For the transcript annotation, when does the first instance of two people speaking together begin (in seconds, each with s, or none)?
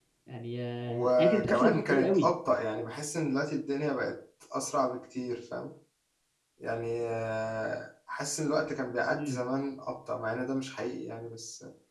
0.9 s